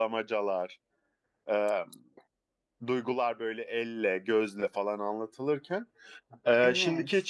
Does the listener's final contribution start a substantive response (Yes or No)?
No